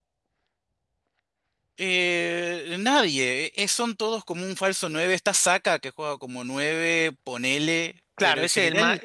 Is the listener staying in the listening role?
No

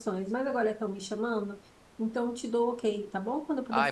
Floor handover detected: Yes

